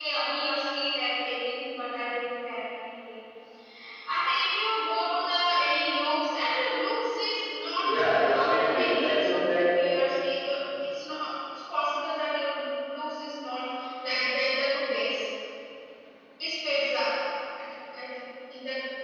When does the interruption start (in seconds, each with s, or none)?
7.8 s